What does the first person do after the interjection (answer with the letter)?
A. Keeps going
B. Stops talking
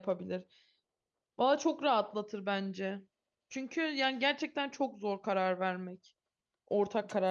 B